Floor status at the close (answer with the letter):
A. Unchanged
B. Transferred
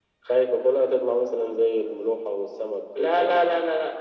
B